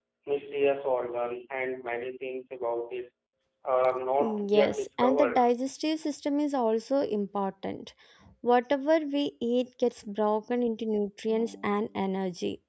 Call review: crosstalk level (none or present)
present